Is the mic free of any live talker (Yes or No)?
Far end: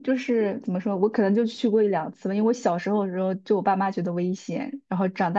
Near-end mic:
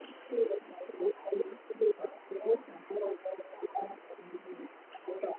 Yes